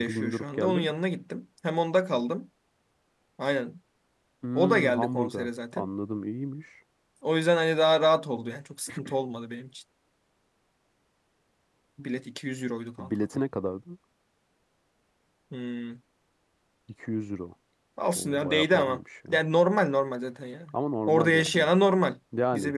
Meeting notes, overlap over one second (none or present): present